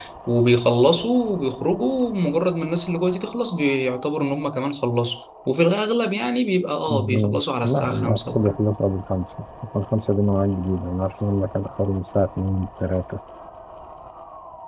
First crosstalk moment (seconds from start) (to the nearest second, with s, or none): 7 s